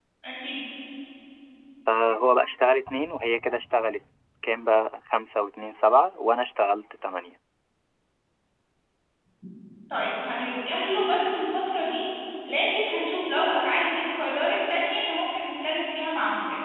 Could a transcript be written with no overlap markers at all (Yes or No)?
Yes